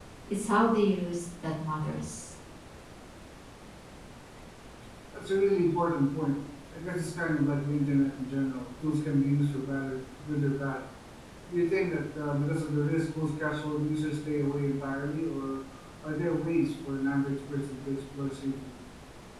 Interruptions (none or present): none